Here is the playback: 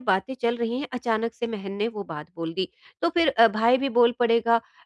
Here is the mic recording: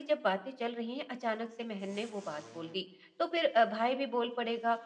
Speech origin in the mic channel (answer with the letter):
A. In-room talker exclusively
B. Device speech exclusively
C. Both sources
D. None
B